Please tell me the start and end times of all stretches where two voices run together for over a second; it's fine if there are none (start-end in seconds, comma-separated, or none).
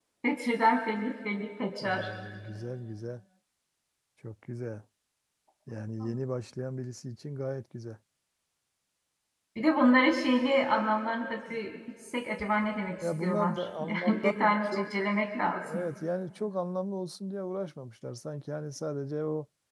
13.2-14.9